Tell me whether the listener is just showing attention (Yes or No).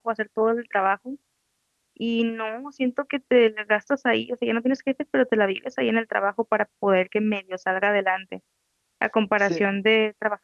Yes